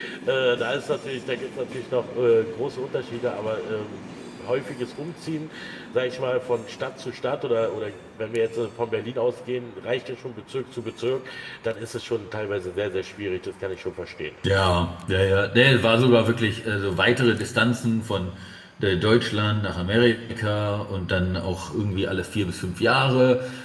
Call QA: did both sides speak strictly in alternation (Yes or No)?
Yes